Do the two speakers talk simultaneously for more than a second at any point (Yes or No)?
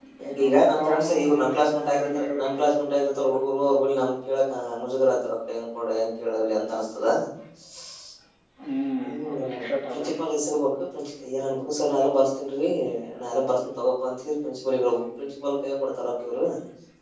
Yes